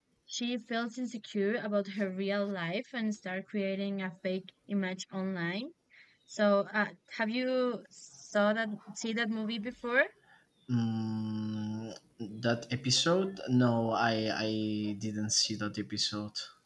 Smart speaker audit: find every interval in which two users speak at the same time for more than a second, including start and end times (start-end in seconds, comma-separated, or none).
none